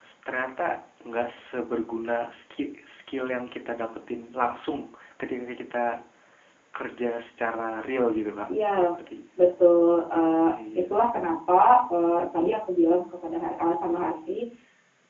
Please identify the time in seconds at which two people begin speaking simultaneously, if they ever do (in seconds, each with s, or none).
none